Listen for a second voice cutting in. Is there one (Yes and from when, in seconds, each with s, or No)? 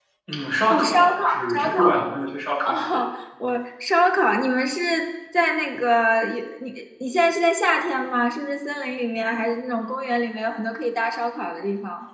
Yes, from 0.7 s